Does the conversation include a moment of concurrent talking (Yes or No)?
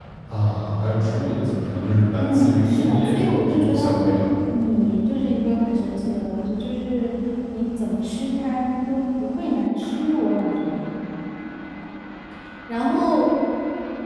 Yes